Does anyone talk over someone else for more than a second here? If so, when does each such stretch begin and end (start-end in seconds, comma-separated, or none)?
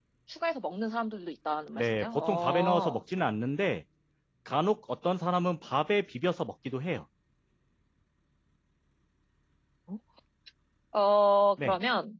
1.8-3.0